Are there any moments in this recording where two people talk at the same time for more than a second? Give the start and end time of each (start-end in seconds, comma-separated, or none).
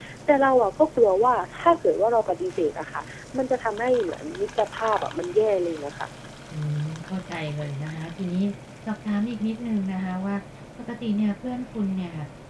none